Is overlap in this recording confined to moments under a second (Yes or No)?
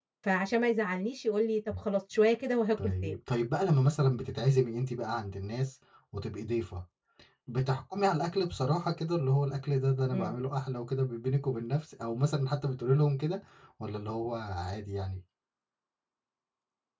Yes